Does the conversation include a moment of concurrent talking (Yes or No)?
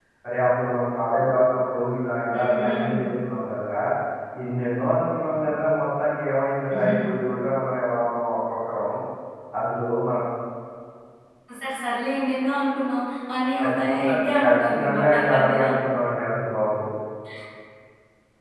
Yes